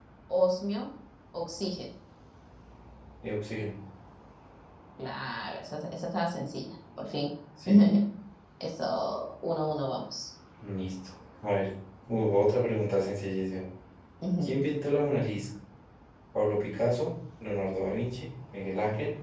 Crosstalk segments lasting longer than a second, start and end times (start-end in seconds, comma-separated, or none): none